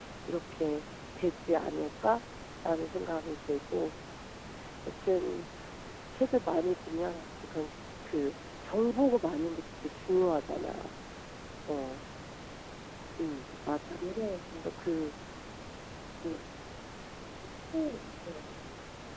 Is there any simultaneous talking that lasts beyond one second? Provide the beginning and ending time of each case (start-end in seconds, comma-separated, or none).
none